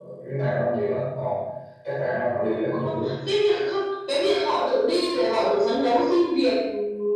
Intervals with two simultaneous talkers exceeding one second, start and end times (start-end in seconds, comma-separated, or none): none